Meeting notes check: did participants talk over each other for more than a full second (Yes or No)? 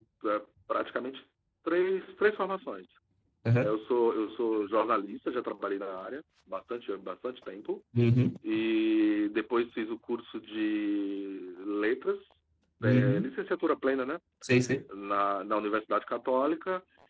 No